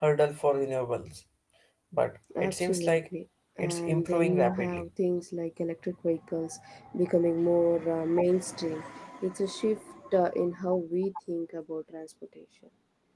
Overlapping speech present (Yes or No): Yes